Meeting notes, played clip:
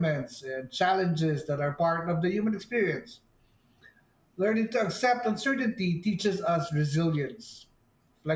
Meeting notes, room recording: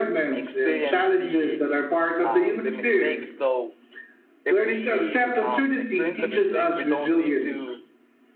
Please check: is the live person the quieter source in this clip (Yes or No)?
Yes